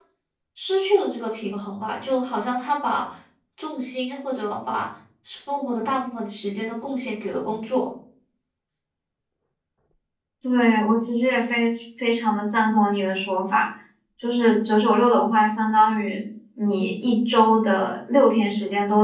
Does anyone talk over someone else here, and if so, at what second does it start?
none

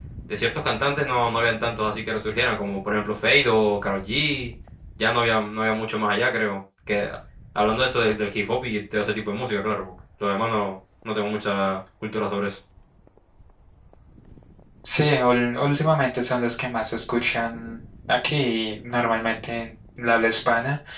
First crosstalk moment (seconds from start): none

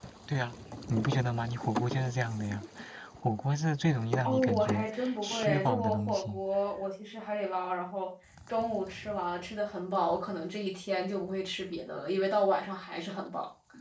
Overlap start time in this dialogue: 4.2 s

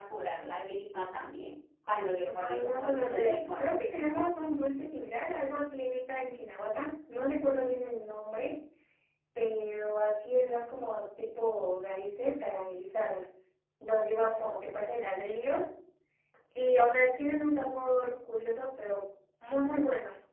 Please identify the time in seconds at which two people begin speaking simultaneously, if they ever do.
2.2 s

